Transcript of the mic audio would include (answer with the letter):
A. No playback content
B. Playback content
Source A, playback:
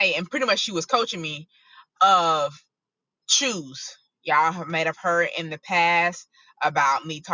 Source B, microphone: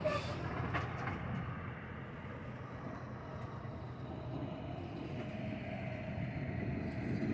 A